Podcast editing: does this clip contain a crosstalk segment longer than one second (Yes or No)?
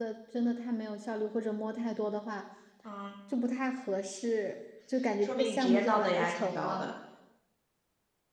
Yes